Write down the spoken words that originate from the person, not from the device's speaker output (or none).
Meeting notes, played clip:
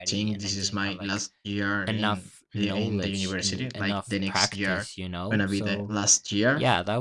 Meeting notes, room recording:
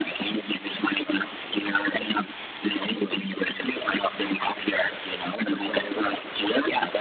none